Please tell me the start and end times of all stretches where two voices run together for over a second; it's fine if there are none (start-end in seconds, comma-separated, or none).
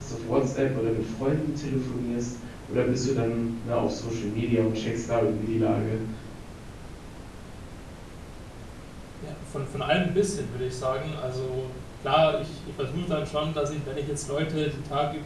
none